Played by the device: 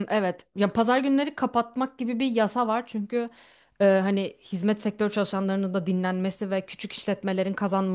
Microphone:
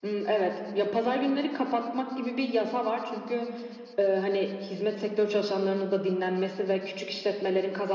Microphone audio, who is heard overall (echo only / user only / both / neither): echo only